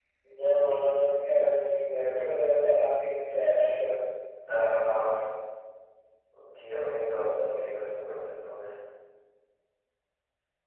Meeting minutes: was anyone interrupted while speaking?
No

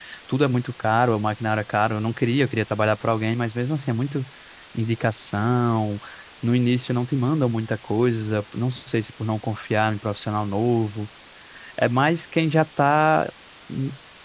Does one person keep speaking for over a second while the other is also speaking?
No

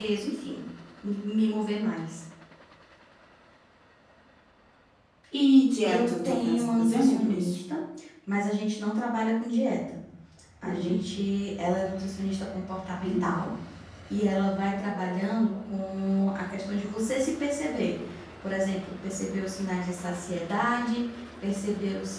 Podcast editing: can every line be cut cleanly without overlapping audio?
No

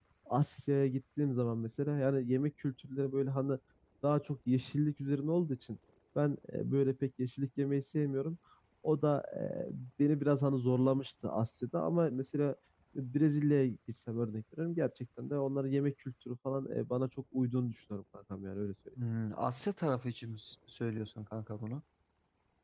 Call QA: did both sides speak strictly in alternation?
Yes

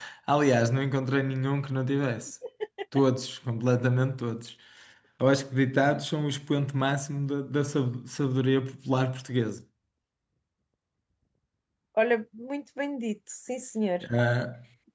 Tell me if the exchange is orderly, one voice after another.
Yes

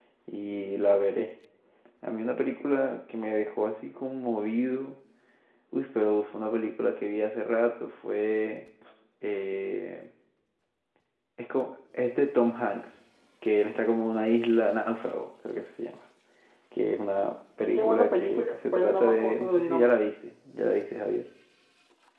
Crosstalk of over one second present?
Yes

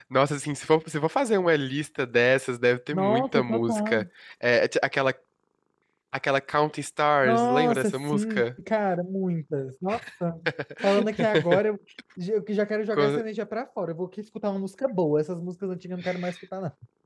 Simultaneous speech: Yes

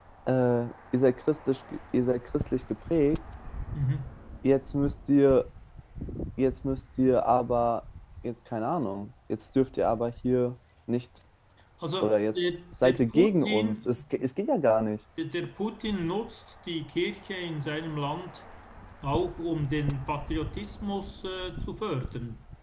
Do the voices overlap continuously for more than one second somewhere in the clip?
Yes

